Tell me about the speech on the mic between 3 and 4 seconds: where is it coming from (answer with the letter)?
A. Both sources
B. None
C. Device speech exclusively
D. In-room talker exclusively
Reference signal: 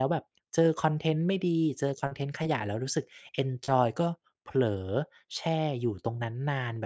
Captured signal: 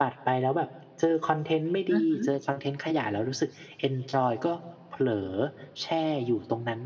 C